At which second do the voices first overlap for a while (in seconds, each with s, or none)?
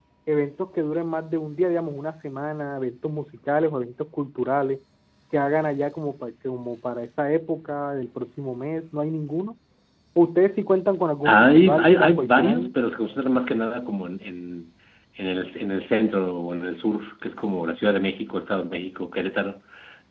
11.2 s